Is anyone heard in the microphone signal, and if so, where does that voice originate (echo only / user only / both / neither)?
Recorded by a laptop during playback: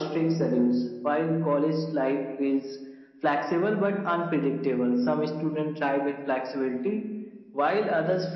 echo only